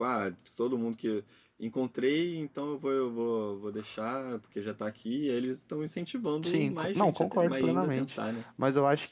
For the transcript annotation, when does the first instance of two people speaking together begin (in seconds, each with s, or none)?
6.4 s